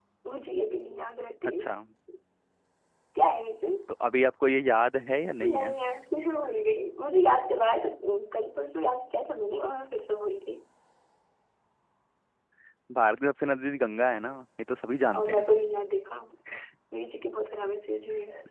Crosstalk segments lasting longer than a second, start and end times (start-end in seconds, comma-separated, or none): none